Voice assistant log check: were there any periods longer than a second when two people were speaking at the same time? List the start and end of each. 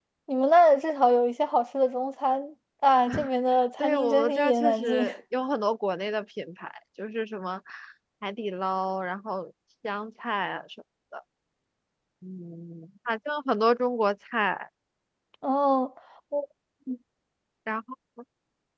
3.8-5.1

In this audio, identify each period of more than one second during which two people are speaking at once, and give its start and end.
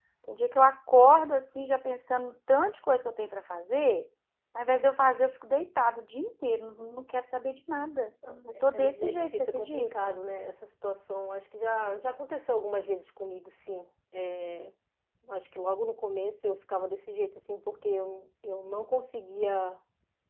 8.7-10.1

